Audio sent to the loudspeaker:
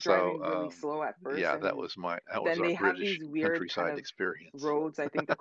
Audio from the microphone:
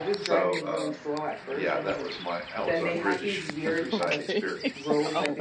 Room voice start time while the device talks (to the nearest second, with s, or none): 4 s